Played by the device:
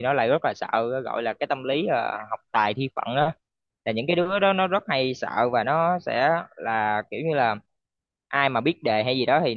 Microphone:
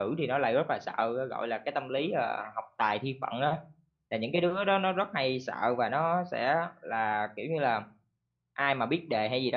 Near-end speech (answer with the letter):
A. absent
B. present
A